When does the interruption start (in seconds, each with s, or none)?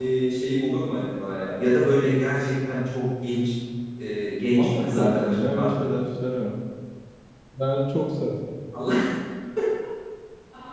4.6 s